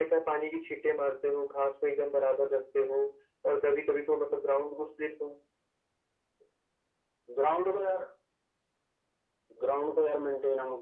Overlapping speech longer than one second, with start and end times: none

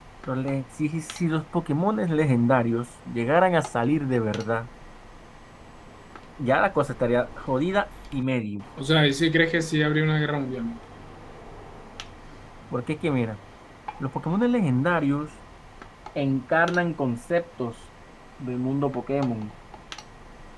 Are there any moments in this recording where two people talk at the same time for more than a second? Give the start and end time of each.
none

